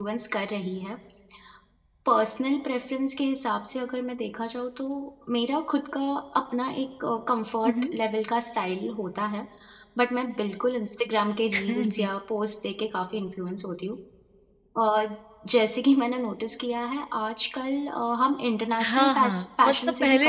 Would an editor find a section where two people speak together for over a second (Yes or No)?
Yes